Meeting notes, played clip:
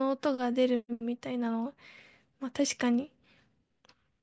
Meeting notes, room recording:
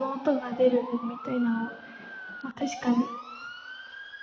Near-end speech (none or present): none